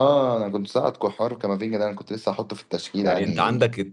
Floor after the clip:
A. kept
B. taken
B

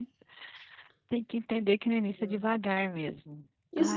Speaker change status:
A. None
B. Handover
B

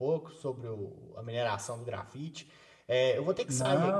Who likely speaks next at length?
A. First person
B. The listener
A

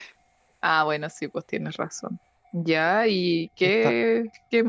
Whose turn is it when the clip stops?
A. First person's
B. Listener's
A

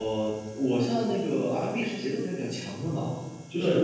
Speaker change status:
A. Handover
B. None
B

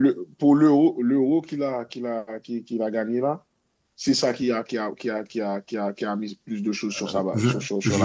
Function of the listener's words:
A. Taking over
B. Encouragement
A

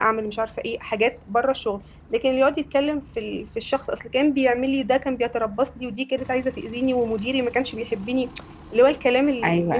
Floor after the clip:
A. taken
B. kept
A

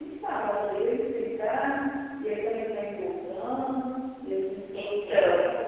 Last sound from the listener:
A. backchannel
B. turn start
A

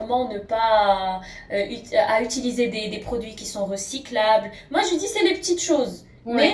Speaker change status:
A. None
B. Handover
A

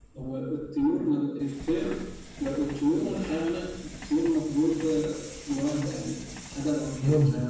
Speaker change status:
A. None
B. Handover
B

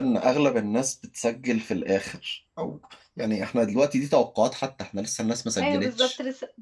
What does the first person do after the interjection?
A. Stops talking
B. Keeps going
A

